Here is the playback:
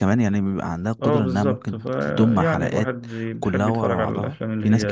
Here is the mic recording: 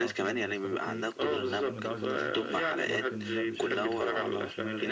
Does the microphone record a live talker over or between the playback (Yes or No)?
Yes